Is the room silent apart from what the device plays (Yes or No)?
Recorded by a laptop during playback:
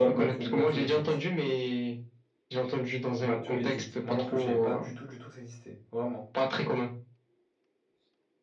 No